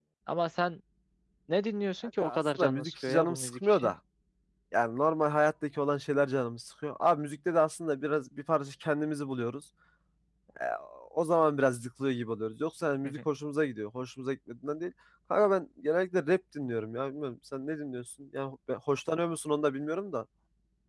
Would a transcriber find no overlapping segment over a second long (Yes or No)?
No